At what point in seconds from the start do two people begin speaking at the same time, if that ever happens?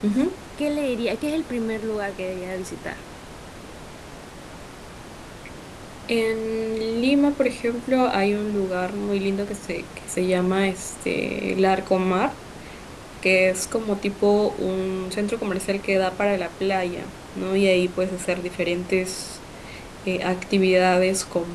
none

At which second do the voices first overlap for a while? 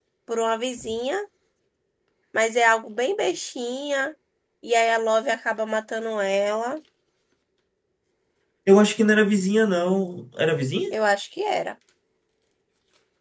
none

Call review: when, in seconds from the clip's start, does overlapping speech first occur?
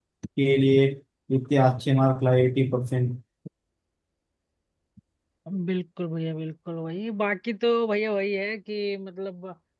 none

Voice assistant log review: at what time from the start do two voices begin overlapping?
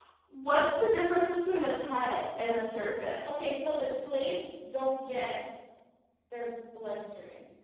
none

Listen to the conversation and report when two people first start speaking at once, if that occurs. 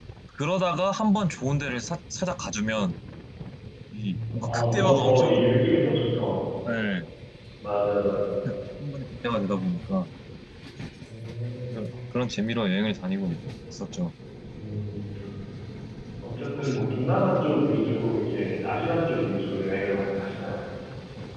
4 s

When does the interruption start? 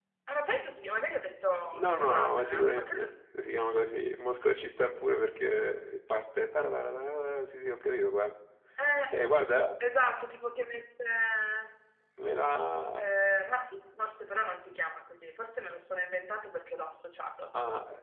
2 s

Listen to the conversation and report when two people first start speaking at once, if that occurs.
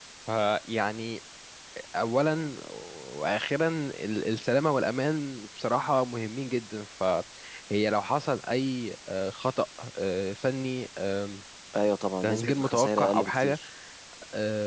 12 s

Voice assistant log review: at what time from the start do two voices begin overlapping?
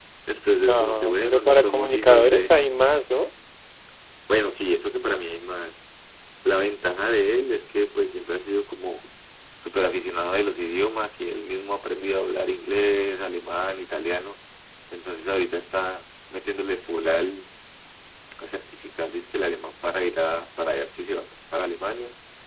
1 s

